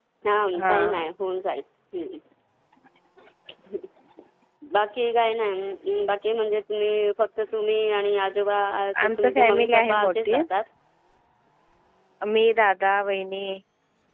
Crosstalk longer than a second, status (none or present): present